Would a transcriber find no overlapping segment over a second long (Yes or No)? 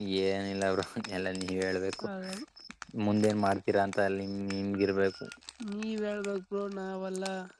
Yes